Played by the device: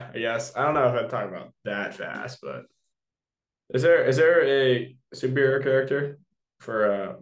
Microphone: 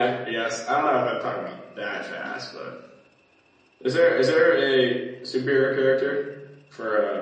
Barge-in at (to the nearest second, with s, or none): none